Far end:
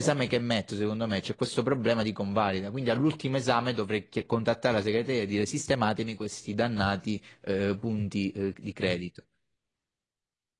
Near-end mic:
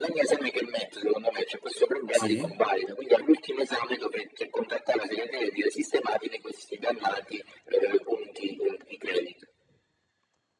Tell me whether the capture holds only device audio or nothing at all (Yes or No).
No